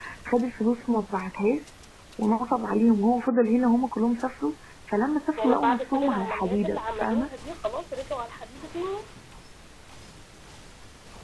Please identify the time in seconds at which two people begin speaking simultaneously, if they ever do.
5.4 s

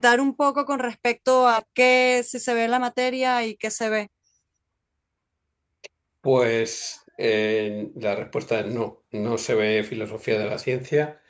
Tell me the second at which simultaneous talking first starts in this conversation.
none

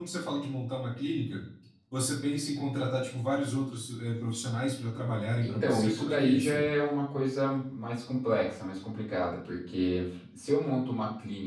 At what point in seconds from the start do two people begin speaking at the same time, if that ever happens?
5.4 s

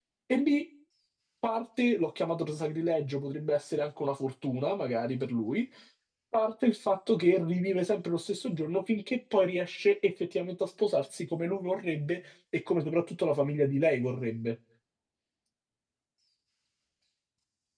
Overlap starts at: none

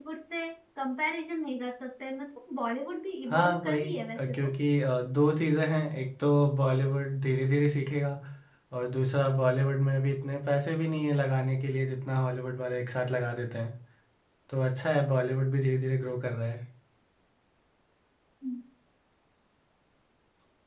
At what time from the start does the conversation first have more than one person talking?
3.3 s

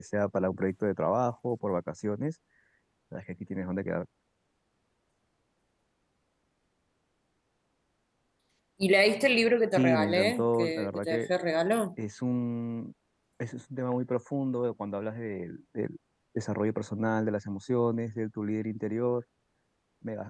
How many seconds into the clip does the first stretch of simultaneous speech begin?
9.7 s

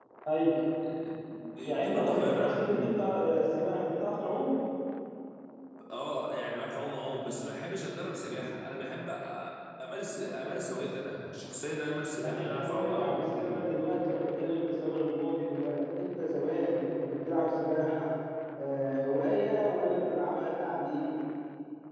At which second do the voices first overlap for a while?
1.6 s

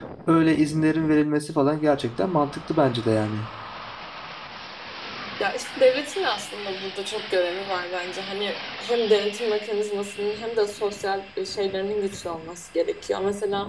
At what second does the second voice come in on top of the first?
none

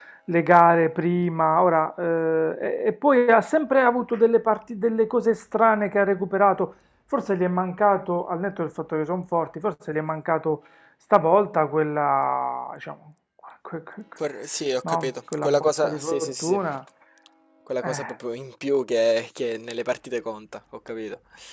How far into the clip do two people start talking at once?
14.8 s

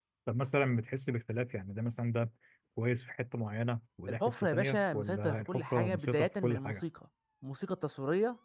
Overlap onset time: 4.1 s

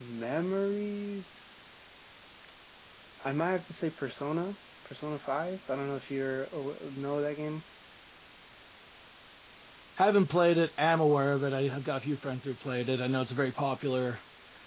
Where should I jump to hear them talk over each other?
none

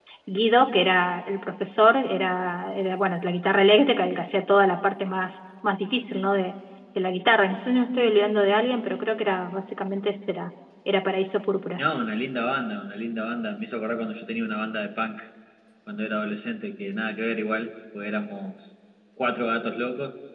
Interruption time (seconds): none

